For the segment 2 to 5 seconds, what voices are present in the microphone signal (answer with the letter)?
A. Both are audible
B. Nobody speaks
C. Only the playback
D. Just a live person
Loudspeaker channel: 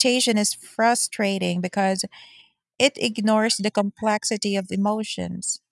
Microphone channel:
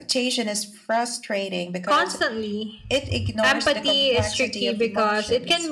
A